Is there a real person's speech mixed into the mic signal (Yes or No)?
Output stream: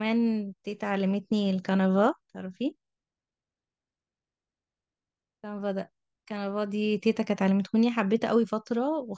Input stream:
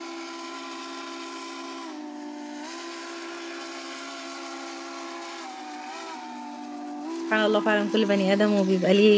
Yes